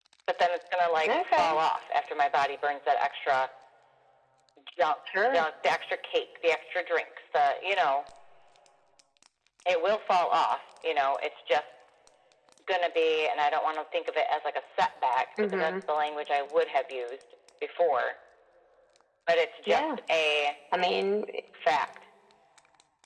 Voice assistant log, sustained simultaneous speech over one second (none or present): none